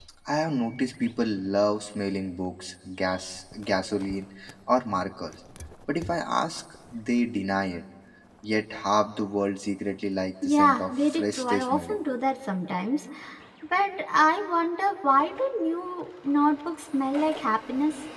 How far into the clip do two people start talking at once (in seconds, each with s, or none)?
10.4 s